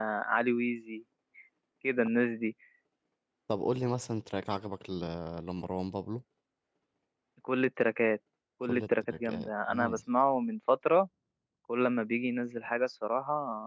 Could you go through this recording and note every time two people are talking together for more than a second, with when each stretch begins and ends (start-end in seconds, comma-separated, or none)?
8.6-10.0